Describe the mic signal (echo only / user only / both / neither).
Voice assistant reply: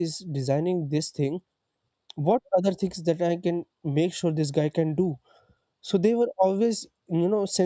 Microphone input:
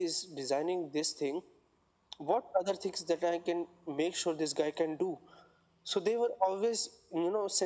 echo only